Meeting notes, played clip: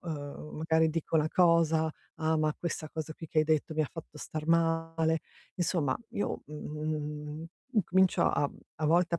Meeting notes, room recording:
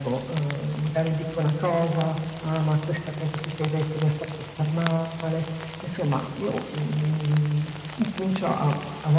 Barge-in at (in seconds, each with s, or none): none